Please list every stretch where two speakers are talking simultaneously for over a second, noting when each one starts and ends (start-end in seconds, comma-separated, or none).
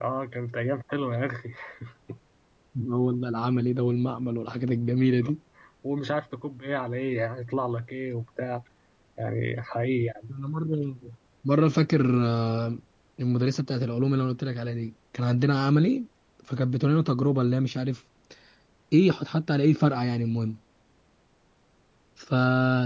none